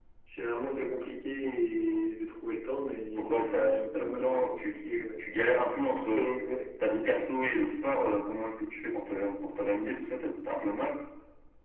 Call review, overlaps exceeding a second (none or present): present